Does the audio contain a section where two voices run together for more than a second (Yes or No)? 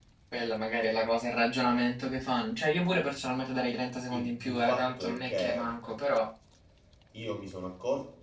Yes